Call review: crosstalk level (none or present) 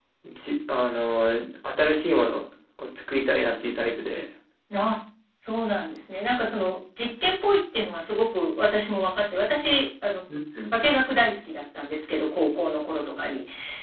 none